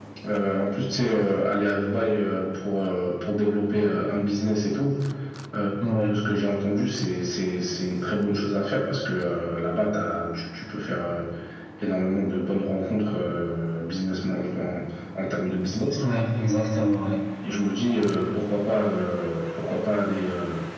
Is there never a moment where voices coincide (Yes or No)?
Yes